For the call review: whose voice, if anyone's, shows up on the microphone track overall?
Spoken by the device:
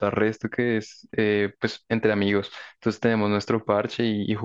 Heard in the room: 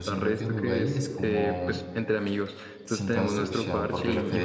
both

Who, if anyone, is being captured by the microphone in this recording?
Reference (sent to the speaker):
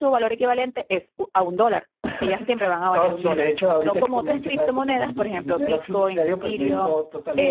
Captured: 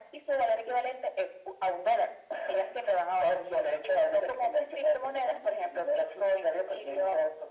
echo only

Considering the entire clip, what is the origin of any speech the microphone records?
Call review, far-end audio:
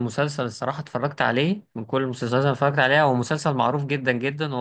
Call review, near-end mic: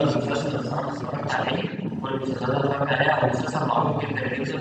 both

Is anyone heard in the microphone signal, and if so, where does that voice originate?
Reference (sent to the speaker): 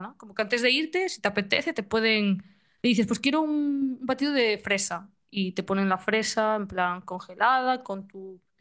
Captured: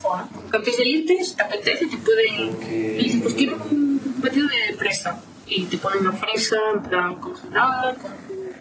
both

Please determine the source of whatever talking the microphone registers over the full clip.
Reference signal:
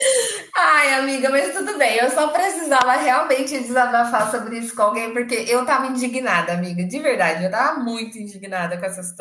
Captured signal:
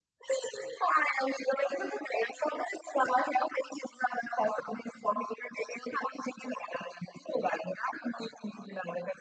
echo only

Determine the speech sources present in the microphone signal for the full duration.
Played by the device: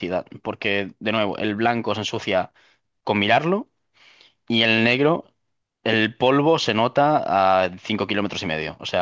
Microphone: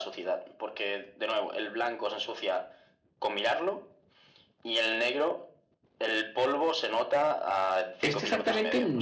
both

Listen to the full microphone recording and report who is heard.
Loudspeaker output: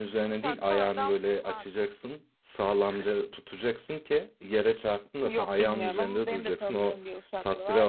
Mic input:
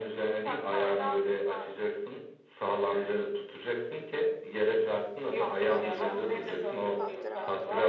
both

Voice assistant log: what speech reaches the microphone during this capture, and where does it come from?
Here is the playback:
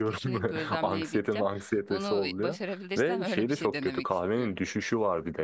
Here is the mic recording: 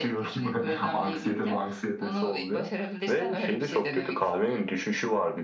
echo only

